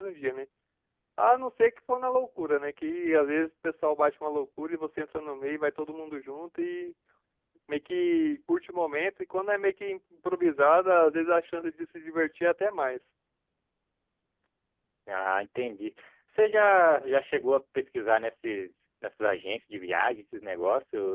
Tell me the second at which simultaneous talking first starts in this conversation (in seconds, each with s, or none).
none